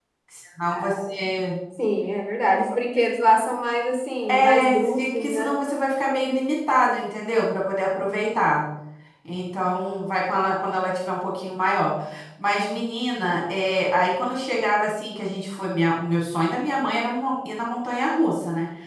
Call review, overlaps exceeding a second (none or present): present